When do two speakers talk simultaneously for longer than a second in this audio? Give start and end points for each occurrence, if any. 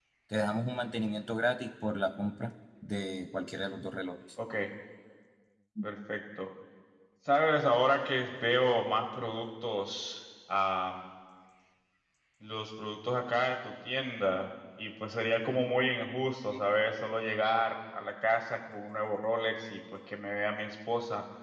none

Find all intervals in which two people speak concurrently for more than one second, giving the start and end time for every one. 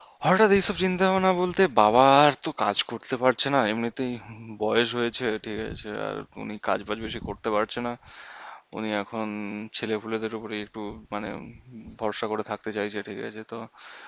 none

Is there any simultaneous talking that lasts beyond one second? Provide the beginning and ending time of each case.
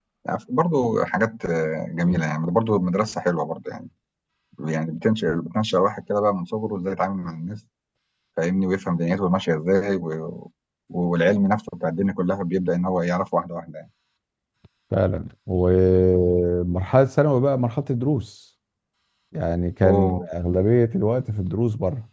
none

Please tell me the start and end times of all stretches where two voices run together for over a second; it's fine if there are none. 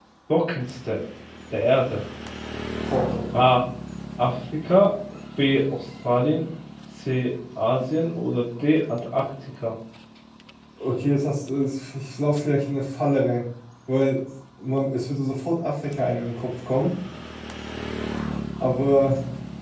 none

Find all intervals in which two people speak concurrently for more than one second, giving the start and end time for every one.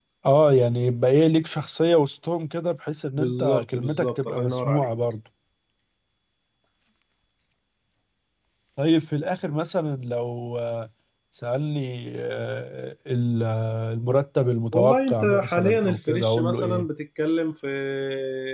3.2-4.9, 14.7-16.9

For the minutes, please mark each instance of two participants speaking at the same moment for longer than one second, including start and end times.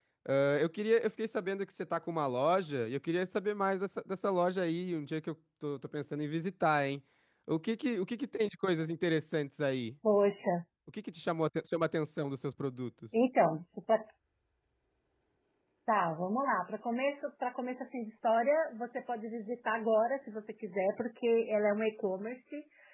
none

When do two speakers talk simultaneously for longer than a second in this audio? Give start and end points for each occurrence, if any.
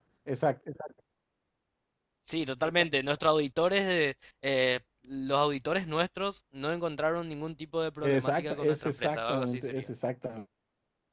8.0-9.9

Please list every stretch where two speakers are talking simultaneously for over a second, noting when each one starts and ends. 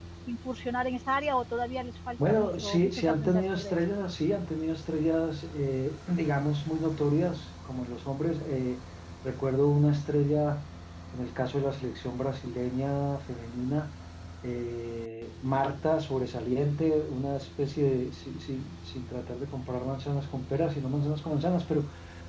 2.3-3.8

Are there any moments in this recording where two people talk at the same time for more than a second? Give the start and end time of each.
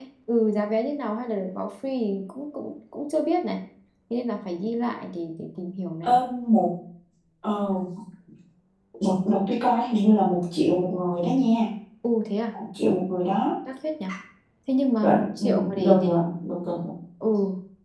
15.0-16.2

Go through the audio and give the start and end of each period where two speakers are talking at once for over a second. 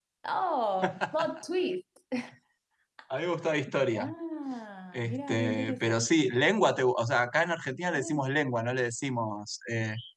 4.9-6.1

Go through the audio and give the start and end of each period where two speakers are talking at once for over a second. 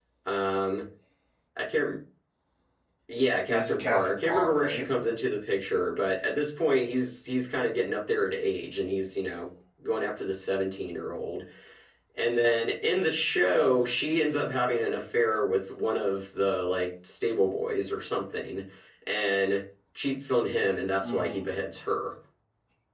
3.5-4.8

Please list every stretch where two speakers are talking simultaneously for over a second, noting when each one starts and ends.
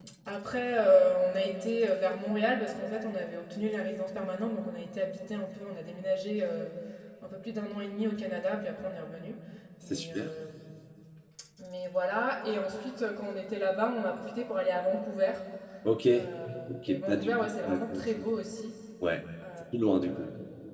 16.9-18.2

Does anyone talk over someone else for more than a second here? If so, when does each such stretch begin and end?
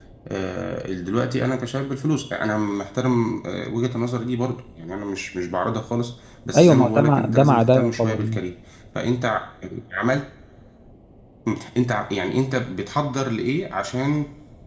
6.6-8.4

